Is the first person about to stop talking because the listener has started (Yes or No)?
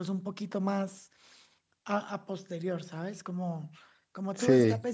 No